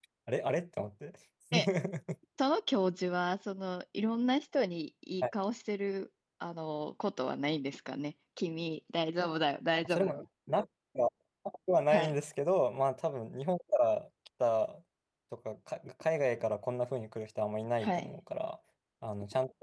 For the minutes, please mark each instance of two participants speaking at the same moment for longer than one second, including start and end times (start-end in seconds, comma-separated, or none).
none